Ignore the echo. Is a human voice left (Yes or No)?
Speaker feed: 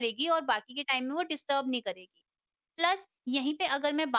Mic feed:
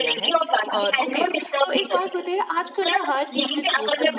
Yes